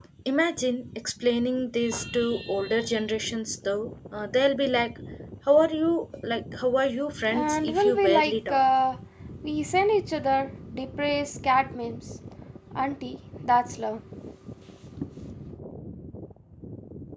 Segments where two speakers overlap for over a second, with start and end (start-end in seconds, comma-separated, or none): 7.3-8.6